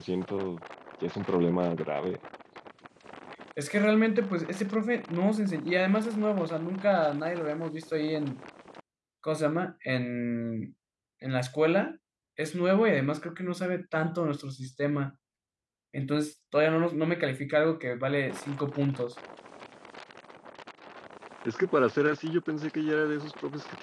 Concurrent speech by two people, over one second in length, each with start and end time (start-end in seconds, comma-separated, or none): none